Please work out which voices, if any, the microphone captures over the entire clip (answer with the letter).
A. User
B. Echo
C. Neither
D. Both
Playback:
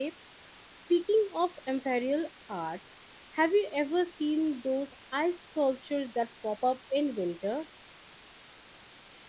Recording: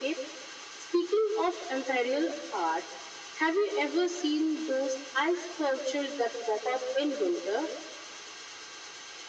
B